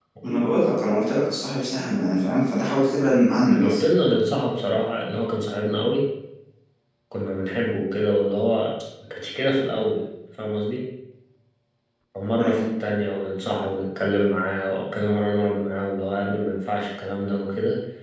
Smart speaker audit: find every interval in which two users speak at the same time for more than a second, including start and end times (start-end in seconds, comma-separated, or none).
none